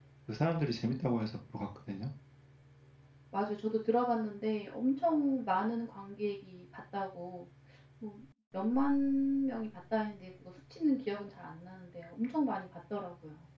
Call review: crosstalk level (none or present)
none